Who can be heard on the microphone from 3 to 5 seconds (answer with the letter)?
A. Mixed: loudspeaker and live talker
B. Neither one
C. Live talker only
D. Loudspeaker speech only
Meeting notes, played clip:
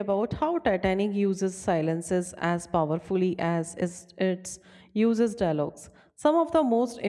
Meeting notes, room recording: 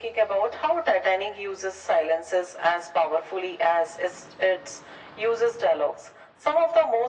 D